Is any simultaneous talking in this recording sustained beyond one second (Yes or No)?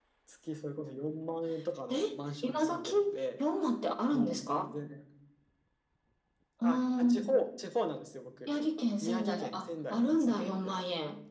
Yes